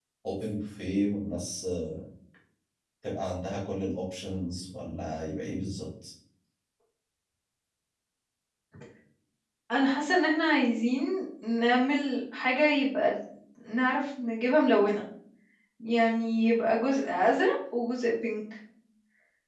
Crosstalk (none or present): none